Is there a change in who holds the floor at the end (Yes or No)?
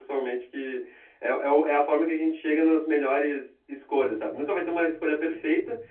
No